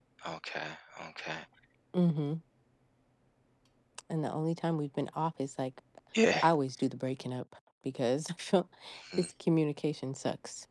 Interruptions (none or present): none